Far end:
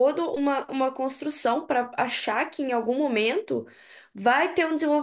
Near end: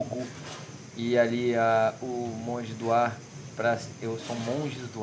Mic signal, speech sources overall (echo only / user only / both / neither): user only